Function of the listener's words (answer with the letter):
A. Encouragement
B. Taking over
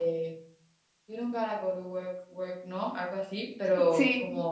A